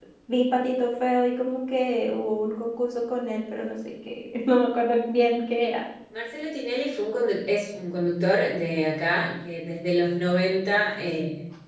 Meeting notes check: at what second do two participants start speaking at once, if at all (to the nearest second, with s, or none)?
none